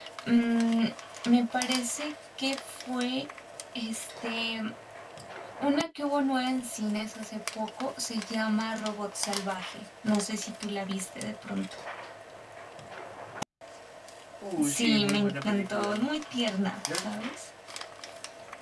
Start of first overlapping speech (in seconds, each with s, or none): 14.6 s